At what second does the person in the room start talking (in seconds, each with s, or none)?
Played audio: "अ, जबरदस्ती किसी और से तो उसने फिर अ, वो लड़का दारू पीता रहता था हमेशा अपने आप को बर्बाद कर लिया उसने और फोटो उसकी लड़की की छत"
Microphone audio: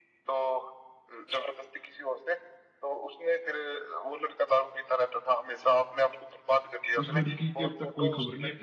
7.0 s